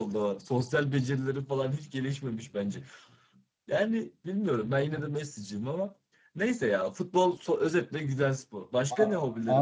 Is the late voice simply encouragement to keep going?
No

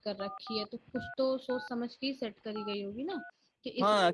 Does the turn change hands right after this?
Yes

